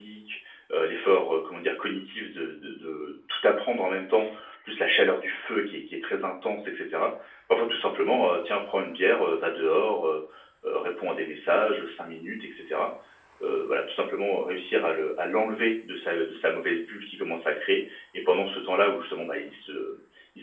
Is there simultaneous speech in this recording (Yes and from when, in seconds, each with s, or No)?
No